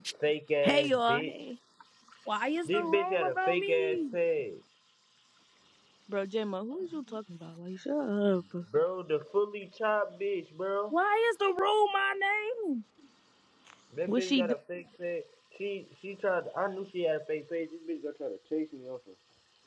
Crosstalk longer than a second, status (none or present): present